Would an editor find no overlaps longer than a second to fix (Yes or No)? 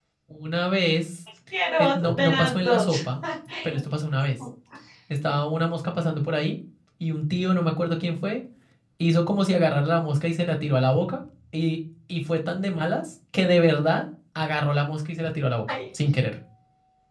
No